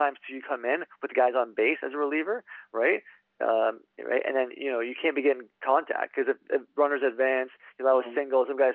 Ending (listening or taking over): listening